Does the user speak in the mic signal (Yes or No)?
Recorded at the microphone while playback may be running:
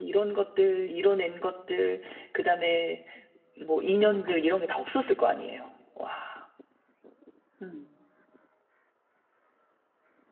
Yes